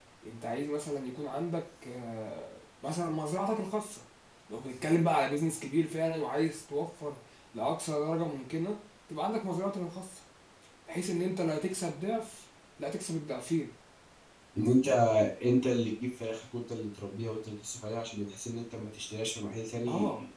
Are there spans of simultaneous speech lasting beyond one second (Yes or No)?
No